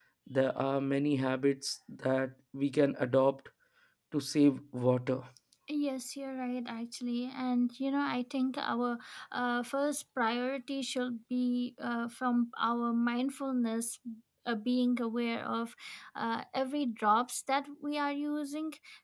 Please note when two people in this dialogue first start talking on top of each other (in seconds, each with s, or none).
none